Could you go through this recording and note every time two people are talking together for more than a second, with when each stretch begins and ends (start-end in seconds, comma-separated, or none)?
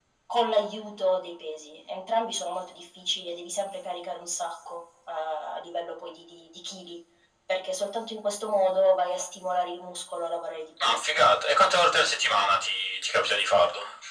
none